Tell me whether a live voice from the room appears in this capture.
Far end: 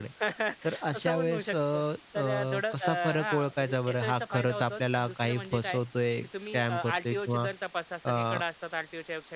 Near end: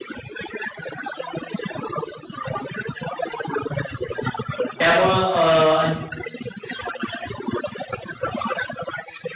Yes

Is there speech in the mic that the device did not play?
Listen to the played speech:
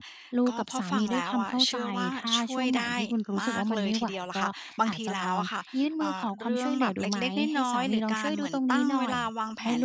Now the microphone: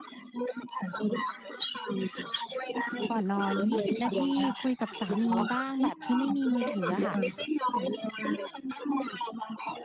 Yes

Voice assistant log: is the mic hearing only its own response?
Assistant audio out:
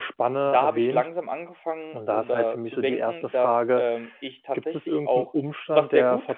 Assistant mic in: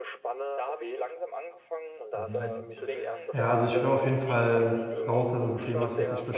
No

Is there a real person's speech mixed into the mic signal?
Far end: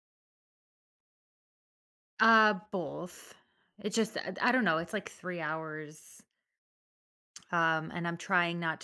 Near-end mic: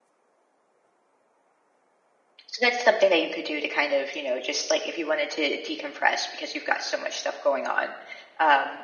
Yes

